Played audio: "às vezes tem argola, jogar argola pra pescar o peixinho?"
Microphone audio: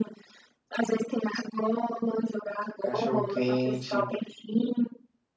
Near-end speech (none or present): present